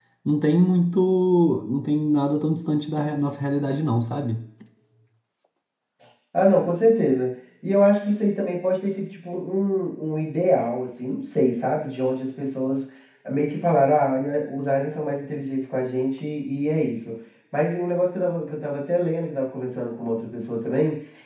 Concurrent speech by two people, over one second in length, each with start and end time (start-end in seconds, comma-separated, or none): none